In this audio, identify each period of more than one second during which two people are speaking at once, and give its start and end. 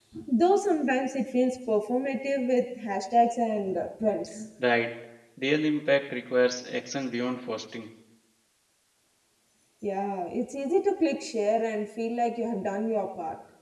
none

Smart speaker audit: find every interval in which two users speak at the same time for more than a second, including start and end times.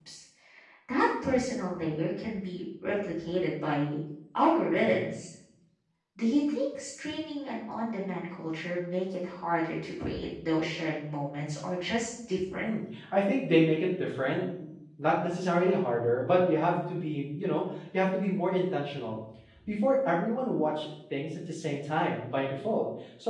none

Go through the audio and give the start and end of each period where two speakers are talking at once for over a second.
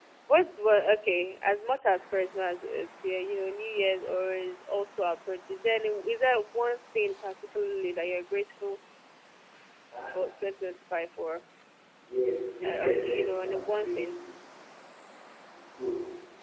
12.6-14.0

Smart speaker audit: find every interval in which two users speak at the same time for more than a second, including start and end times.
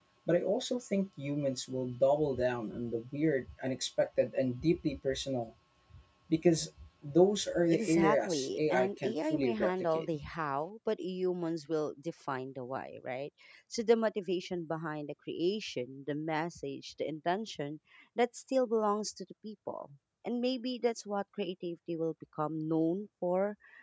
7.7-10.1

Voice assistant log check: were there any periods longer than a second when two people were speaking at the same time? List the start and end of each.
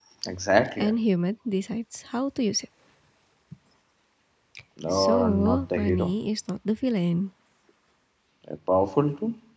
4.9-6.1

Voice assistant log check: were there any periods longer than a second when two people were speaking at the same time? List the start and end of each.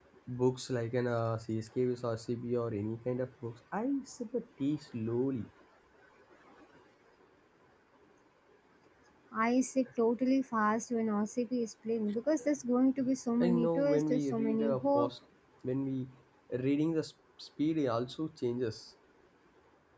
13.4-15.1

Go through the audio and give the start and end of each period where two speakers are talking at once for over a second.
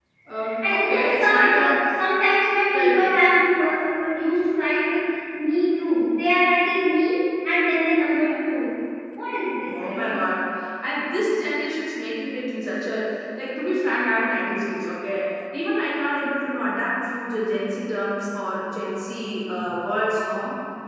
0.6-1.8

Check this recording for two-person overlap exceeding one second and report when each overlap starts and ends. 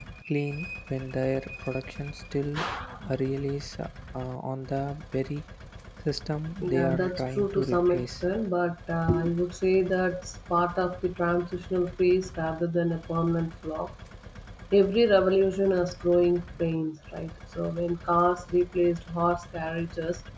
6.6-8.1

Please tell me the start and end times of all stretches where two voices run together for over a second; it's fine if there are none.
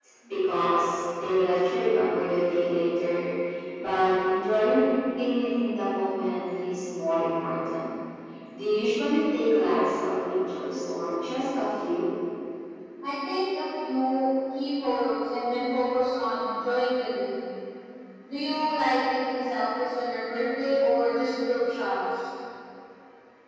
none

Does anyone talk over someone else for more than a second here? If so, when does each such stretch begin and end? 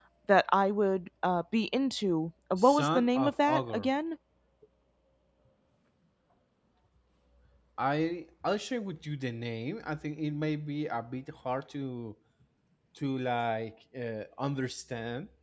2.6-3.9

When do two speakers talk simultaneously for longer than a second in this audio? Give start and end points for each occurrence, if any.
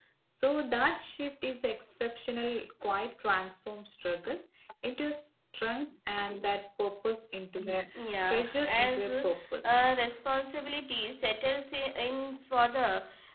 8.3-9.8

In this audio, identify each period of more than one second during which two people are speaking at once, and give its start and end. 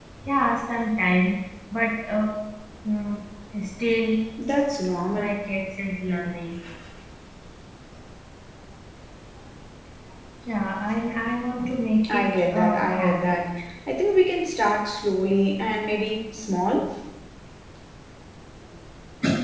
12.1-13.4

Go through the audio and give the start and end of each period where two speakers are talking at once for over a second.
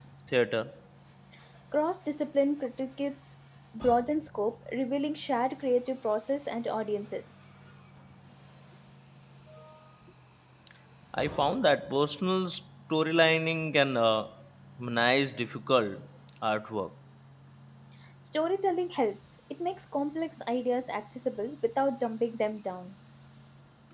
none

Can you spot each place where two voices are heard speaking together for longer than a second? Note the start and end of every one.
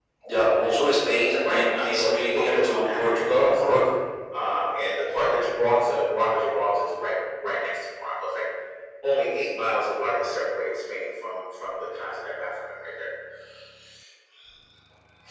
1.4-3.8

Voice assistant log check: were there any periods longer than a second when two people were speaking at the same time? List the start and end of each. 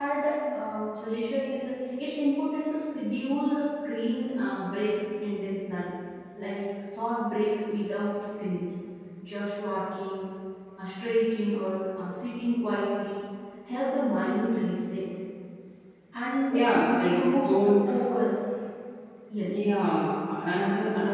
16.5-17.7

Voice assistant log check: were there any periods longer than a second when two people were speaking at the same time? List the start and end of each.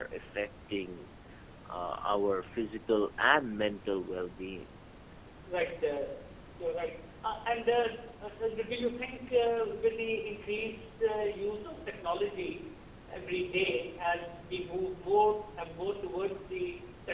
none

